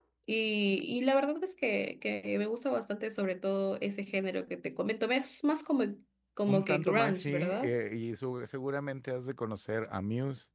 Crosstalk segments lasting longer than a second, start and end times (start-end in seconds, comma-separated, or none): 6.5-7.7